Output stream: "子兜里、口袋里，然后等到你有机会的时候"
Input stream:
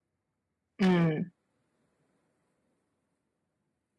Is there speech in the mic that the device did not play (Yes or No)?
Yes